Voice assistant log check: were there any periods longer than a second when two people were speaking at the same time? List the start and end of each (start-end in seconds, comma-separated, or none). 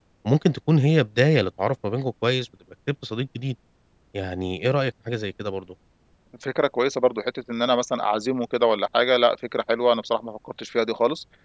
none